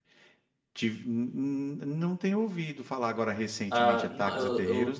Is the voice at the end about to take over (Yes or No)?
Yes